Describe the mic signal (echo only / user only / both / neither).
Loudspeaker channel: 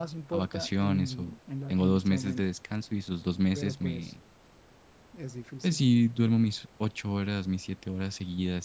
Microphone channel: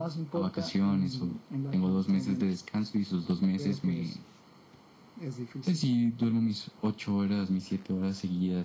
echo only